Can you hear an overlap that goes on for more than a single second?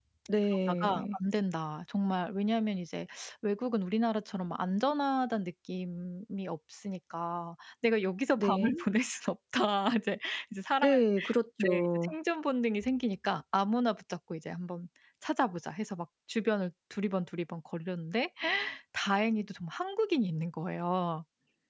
No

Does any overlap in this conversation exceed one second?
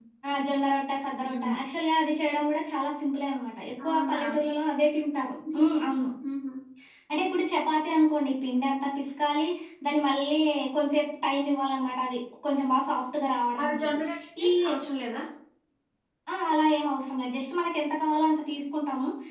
No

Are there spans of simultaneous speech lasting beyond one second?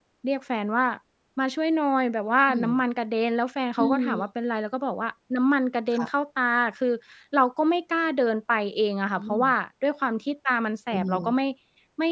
No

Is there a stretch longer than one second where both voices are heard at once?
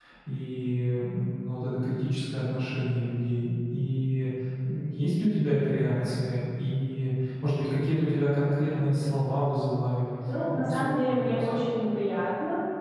Yes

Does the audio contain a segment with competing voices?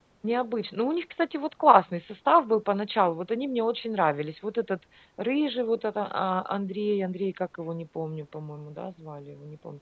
No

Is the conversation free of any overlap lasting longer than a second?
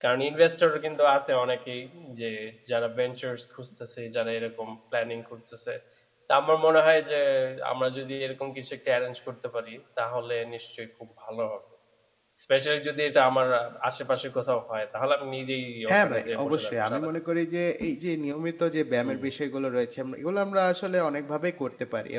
No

